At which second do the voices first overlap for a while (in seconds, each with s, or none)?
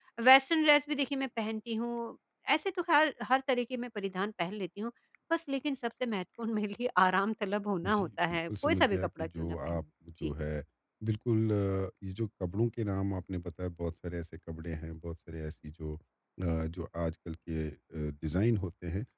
7.8 s